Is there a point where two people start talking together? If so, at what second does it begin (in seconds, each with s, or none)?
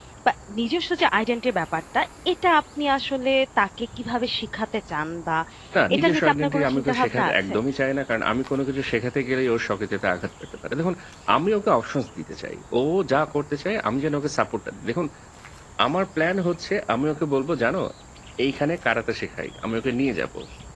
6.0 s